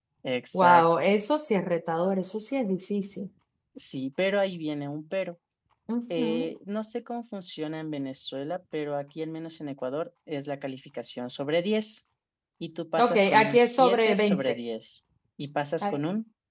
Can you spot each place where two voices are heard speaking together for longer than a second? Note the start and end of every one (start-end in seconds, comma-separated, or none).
13.0-14.6